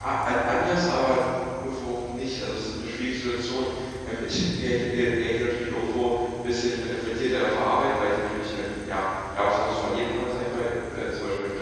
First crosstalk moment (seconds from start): none

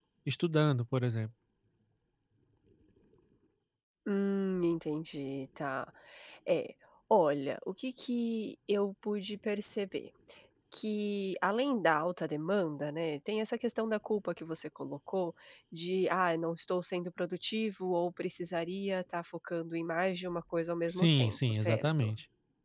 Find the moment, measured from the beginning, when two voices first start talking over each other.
20.9 s

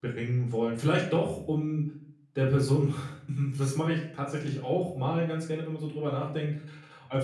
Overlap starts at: none

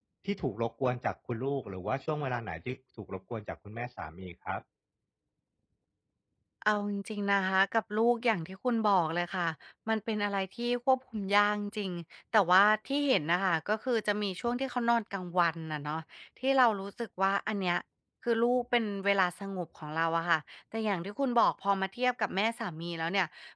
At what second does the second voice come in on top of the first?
none

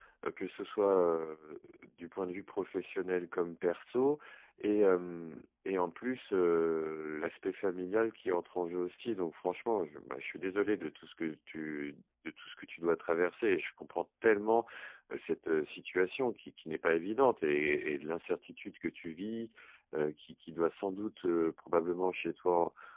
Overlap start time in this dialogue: none

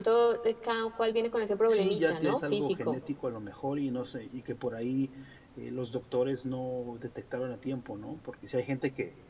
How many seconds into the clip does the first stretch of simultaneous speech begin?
1.7 s

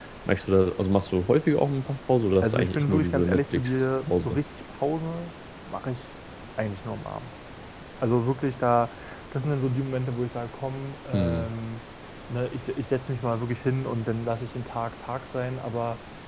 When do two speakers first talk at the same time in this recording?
2.4 s

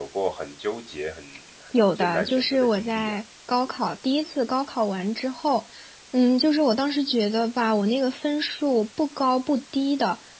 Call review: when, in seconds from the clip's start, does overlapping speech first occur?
1.7 s

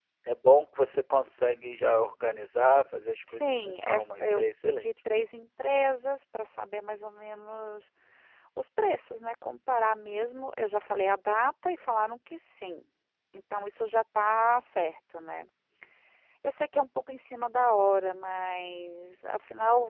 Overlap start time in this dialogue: 3.3 s

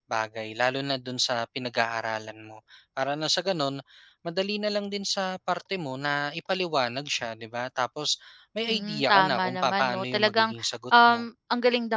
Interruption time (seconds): 8.7 s

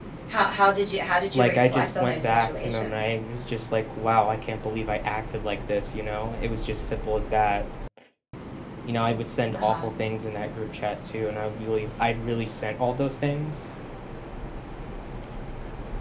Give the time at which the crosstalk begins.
1.3 s

